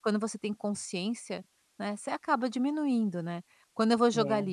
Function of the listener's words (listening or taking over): listening